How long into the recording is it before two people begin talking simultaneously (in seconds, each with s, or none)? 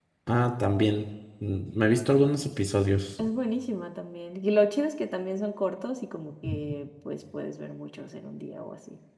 none